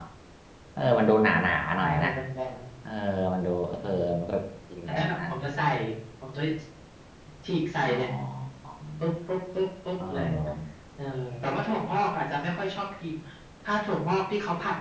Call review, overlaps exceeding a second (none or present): none